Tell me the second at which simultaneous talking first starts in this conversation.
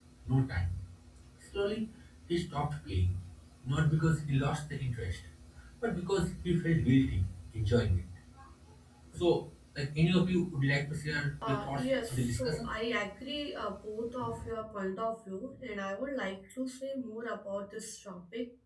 11.4 s

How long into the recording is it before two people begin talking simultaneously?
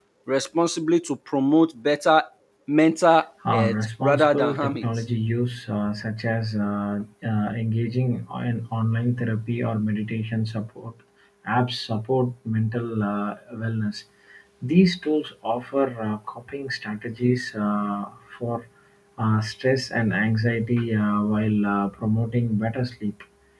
3.5 s

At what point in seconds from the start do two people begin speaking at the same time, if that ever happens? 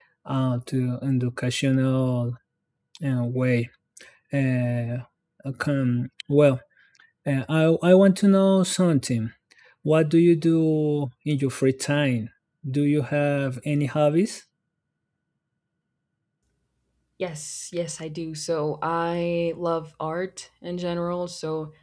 none

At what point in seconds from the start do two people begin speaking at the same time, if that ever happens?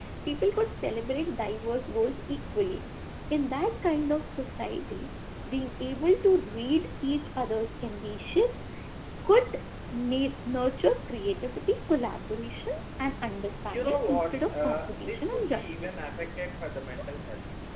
13.7 s

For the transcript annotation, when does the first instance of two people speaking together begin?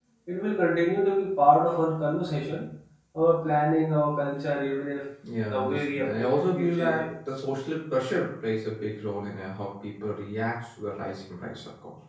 5.2 s

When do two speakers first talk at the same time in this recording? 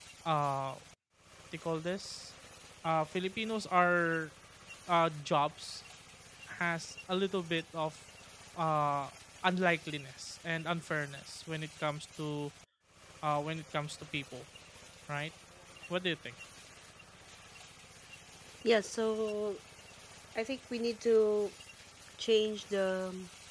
none

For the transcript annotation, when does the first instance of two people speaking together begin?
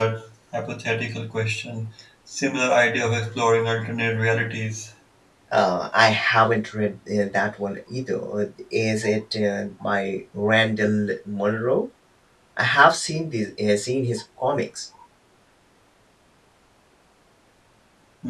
none

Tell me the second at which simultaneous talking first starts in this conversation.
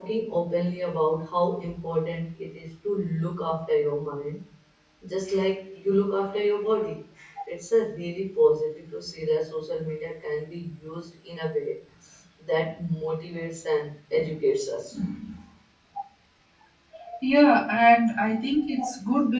none

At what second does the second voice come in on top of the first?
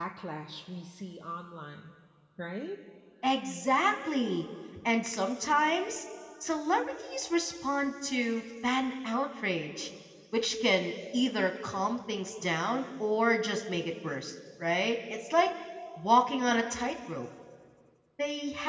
none

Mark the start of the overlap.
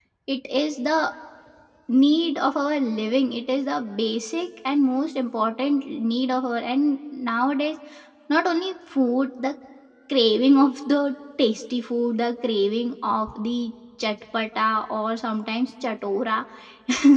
none

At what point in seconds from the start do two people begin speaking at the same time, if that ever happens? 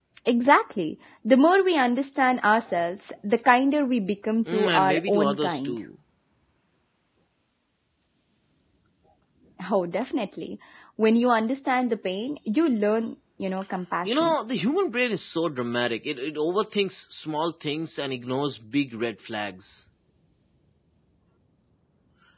4.5 s

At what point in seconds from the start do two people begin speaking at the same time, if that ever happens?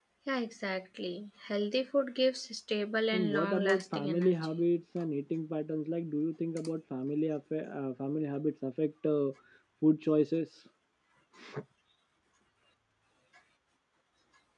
3.1 s

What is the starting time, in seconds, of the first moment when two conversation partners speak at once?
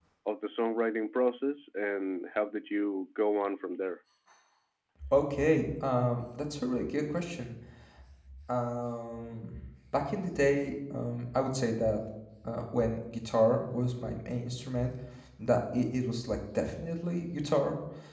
none

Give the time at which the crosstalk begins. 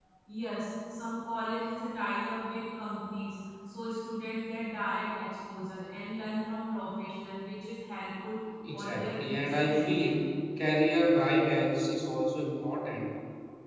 8.6 s

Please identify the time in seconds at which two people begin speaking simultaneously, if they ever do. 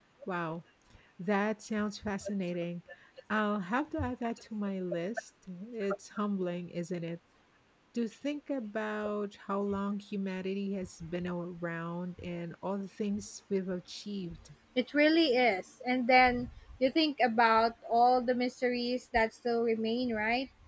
none

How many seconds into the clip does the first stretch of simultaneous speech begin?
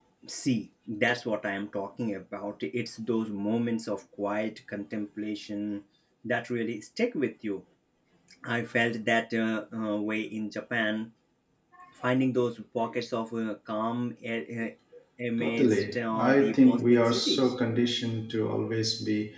15.4 s

